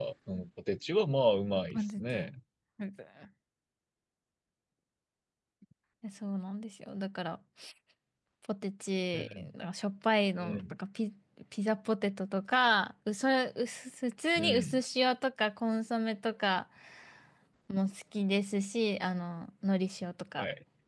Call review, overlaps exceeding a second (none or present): none